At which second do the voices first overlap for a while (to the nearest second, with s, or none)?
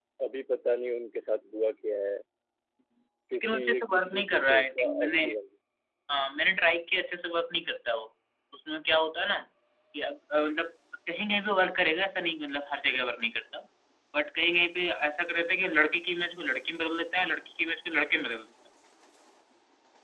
3 s